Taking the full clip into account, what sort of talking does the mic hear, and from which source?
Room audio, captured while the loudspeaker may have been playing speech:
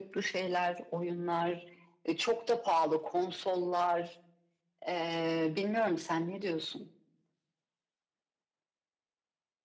echo only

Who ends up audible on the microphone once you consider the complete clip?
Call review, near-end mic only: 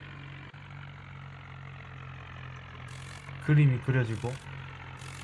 user only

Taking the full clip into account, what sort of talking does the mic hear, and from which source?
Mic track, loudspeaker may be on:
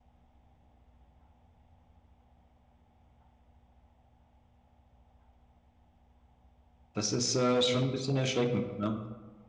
user only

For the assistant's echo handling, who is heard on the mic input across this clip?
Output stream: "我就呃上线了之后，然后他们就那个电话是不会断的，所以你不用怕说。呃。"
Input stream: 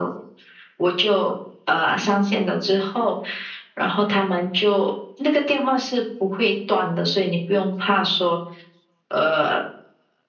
echo only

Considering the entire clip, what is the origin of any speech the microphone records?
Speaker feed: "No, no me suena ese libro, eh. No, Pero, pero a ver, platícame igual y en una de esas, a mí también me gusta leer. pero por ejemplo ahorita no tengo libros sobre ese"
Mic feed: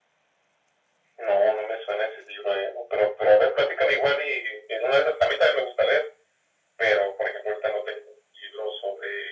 echo only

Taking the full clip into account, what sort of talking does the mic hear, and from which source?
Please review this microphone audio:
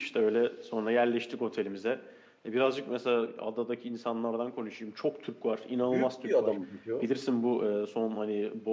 both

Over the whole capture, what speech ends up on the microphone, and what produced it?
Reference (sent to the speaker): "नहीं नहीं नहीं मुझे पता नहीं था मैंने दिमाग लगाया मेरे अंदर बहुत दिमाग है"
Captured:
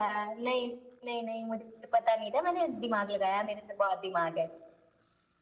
echo only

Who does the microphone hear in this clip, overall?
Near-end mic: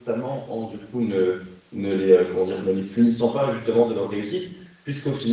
user only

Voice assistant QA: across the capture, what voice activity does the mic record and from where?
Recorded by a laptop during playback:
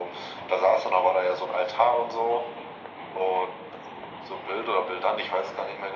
echo only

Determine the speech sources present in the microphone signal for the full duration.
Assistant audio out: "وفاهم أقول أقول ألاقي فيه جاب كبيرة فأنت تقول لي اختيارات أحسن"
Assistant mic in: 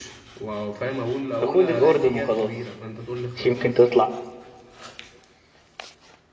both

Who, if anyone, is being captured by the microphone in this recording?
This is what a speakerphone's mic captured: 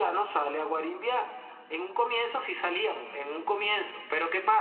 echo only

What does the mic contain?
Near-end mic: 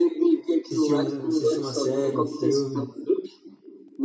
both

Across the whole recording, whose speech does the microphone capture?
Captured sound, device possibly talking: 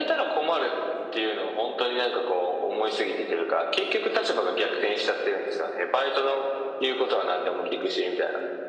echo only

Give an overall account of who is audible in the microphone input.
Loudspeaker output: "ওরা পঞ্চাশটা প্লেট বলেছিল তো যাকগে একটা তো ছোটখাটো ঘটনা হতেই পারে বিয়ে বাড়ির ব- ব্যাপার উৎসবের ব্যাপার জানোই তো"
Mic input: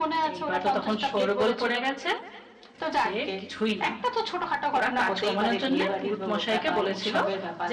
both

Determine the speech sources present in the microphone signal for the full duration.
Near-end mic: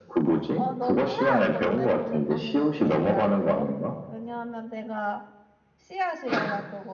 both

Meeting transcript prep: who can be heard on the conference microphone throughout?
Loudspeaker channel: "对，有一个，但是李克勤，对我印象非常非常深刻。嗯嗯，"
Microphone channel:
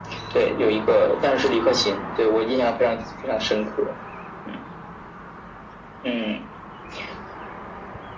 echo only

